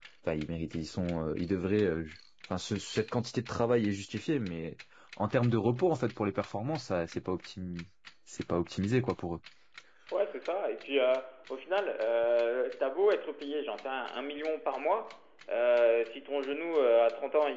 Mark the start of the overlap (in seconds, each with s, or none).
none